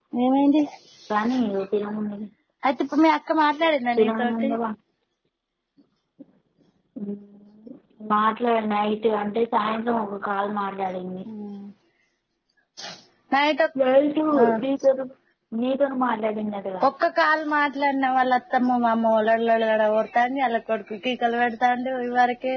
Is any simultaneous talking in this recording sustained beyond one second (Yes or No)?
No